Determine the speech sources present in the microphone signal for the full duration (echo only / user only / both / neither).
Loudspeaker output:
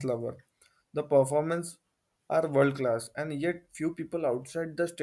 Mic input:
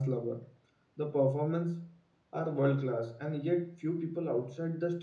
echo only